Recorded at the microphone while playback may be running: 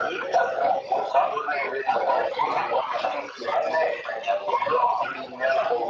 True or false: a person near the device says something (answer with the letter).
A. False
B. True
A